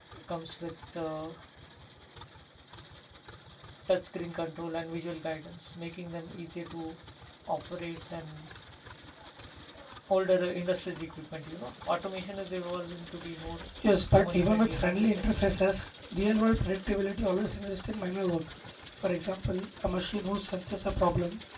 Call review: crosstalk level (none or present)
present